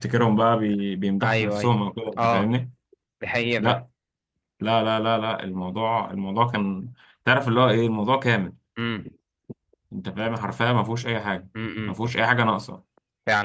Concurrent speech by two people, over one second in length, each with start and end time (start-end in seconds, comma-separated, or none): none